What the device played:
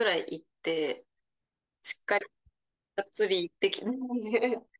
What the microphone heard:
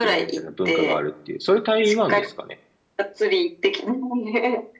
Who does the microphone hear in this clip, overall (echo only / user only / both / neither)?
both